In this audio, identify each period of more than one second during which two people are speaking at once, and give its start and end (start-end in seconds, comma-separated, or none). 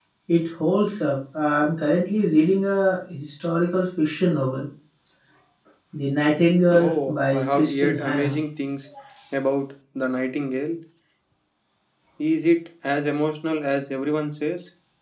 6.8-8.4